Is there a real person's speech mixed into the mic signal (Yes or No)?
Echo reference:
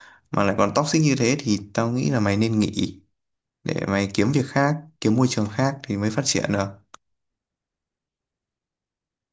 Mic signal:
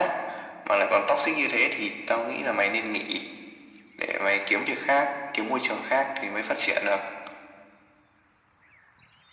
No